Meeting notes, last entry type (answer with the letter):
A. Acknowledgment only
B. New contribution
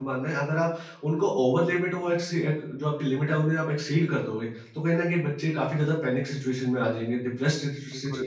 B